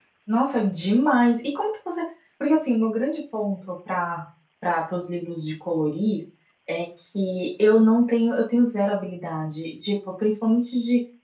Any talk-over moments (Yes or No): No